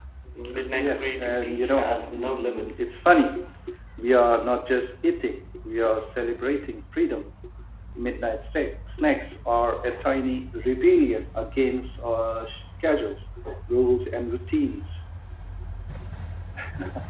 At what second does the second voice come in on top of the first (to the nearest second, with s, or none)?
1 s